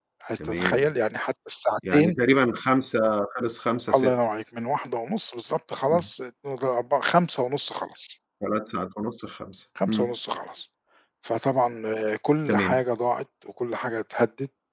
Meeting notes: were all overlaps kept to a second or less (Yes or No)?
Yes